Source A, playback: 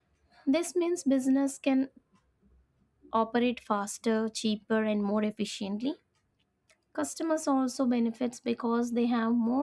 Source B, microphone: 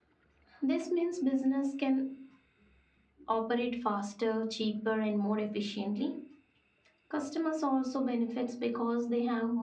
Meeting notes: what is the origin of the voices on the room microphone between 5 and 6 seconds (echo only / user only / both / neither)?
echo only